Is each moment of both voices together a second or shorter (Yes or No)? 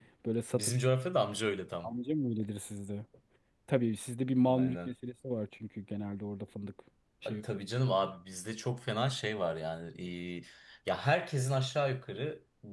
Yes